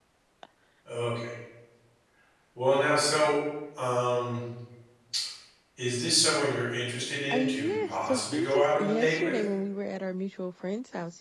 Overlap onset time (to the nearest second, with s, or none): 7 s